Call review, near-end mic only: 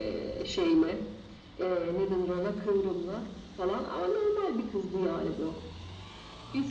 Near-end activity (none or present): none